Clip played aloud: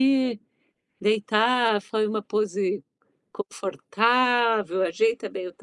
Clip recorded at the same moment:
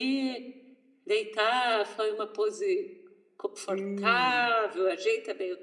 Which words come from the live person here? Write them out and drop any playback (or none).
Hum.